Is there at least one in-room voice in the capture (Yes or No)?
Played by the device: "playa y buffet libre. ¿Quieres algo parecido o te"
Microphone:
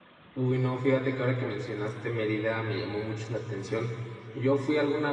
Yes